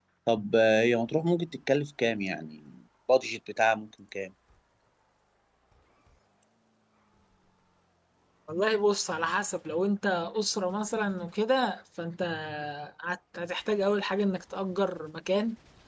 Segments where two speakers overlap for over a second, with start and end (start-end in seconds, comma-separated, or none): none